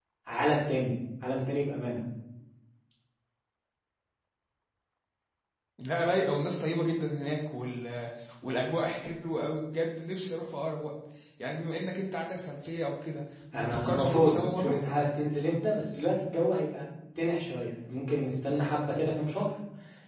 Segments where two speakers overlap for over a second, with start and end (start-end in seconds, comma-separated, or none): 13.5-14.8